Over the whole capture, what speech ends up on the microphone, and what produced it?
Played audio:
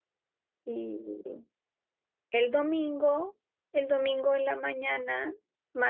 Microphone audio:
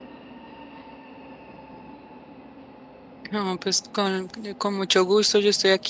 user only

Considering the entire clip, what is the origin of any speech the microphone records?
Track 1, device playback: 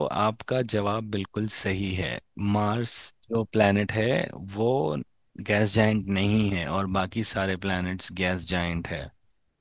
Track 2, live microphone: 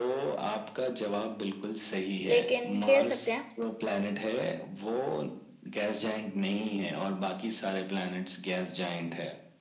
both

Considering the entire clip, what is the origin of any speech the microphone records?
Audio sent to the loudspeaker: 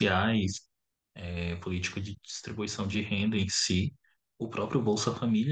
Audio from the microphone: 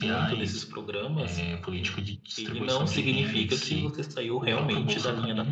both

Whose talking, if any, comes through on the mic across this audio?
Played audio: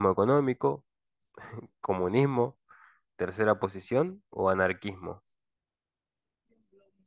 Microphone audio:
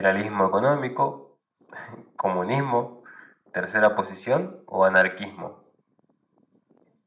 echo only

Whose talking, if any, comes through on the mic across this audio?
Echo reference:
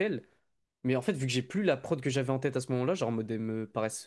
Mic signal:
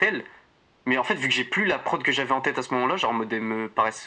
echo only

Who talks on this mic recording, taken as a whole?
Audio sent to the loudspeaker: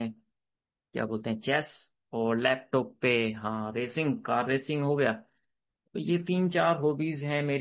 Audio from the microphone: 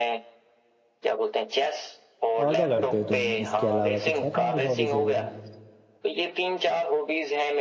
both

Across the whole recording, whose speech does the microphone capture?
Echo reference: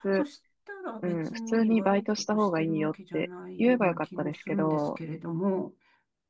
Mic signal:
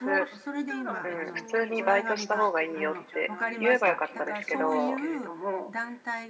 both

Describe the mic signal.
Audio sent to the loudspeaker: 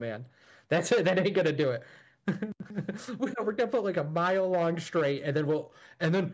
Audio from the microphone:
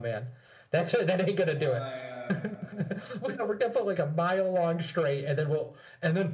both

